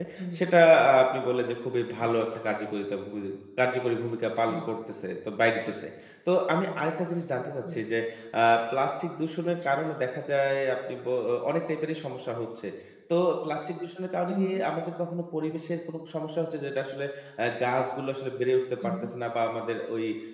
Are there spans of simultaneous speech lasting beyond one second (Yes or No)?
No